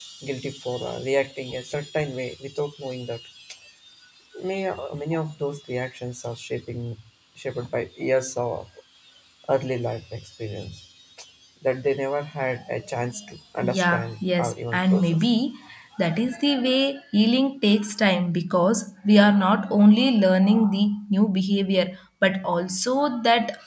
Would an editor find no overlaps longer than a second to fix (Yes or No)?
No